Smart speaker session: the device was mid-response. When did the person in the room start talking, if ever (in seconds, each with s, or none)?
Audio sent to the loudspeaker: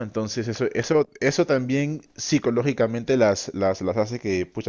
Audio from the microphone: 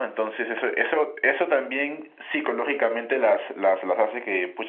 none